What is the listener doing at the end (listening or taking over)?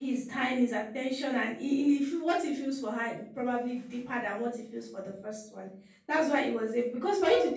listening